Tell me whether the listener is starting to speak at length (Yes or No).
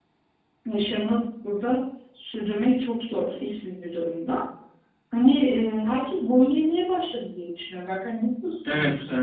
Yes